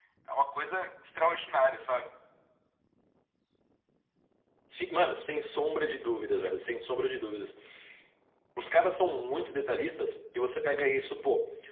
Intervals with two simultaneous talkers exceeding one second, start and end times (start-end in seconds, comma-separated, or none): none